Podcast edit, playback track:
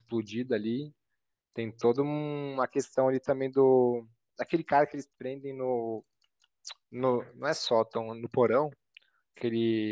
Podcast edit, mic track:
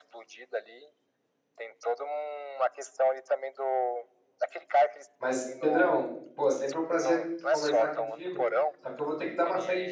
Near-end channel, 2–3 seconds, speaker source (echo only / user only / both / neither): echo only